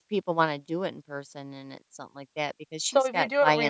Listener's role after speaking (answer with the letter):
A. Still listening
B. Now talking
B